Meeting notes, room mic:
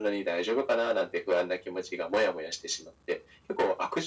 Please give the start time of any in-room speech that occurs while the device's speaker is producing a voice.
none

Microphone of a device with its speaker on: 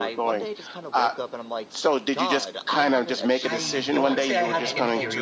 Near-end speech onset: 3.4 s

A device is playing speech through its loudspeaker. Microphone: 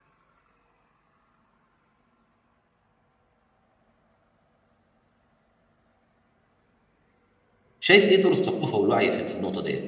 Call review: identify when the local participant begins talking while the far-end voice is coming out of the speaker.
7.8 s

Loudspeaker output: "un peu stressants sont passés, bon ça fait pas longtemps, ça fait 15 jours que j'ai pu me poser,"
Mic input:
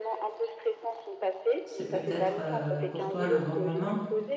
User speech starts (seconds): 1.6 s

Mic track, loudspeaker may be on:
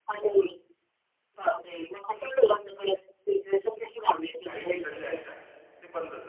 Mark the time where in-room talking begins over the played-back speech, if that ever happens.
4.4 s

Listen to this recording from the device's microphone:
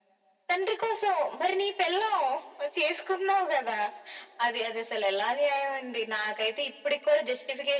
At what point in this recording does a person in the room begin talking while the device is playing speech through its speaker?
none

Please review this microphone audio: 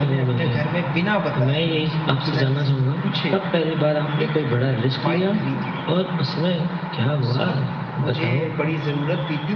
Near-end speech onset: none

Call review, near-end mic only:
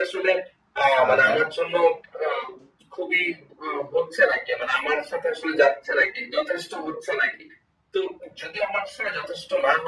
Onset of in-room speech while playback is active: 1.0 s

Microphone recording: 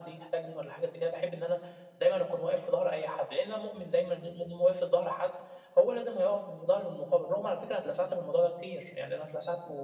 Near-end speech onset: none

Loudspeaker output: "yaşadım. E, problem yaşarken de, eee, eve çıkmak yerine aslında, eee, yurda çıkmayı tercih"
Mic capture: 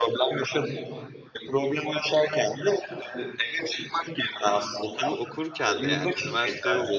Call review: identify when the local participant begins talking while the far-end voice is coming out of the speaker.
4.8 s

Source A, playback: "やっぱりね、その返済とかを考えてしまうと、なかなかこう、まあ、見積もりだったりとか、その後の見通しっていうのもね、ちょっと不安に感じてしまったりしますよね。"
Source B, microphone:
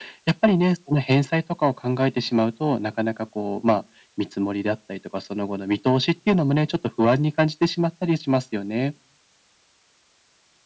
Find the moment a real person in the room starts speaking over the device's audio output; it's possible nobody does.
none

